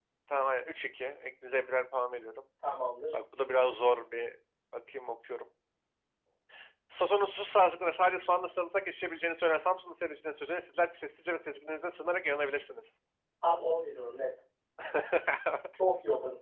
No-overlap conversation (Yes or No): Yes